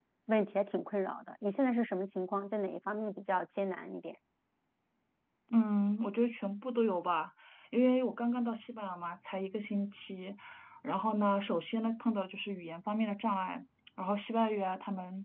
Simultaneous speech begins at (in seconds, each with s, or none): none